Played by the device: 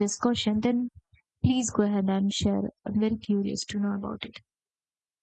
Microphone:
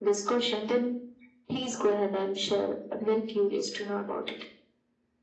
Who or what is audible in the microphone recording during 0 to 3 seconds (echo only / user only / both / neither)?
echo only